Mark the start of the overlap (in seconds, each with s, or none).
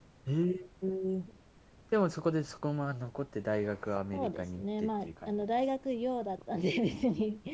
4.1 s